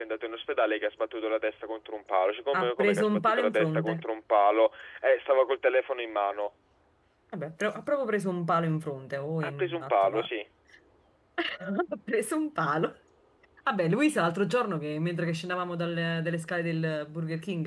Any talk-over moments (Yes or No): Yes